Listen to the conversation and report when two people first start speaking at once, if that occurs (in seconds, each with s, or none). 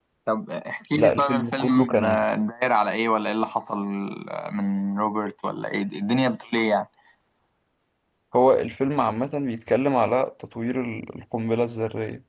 0.9 s